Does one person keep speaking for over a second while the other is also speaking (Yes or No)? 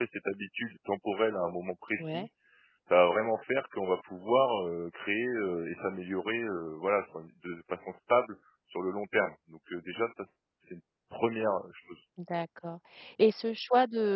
No